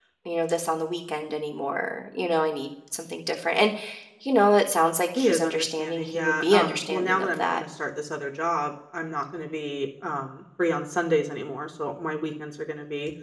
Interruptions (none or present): present